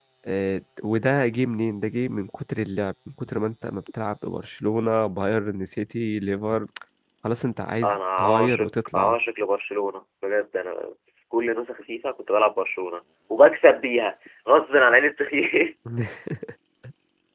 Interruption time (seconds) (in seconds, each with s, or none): 7.8 s